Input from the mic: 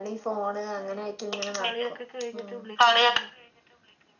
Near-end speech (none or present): present